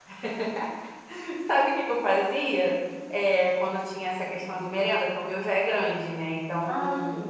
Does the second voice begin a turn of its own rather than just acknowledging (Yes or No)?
No